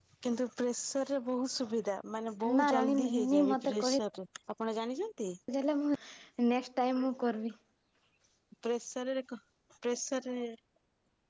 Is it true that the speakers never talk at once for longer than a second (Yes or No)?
No